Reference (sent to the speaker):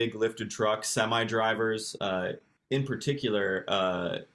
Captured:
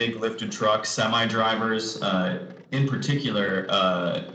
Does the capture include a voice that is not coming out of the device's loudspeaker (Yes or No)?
No